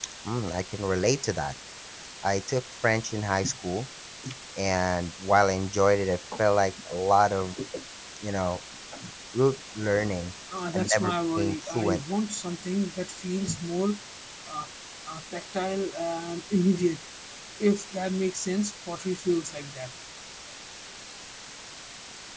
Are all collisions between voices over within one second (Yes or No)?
No